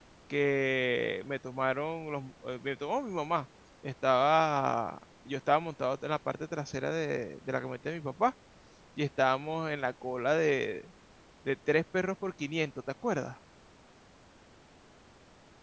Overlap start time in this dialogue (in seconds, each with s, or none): none